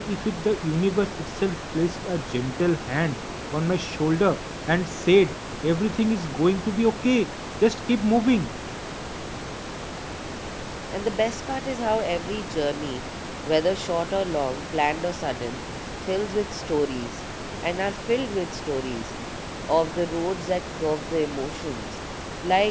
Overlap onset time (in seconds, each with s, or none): none